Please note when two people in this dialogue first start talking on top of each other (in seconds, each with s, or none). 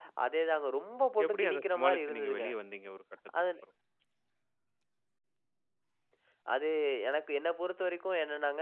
1.2 s